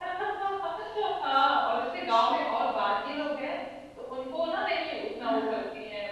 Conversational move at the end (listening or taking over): listening